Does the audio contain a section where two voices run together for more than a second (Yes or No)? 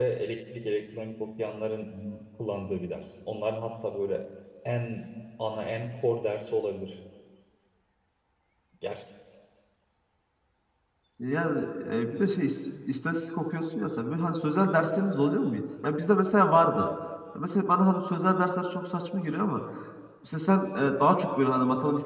No